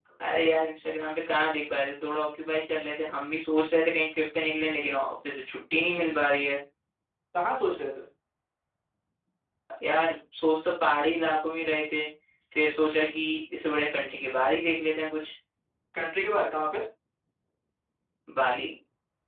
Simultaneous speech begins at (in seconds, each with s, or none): none